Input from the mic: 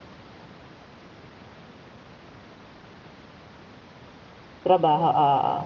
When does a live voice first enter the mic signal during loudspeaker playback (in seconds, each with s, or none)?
4.6 s